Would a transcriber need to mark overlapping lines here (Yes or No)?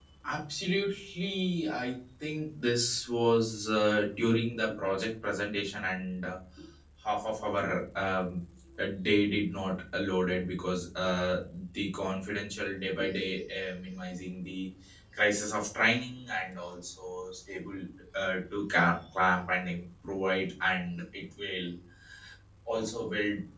No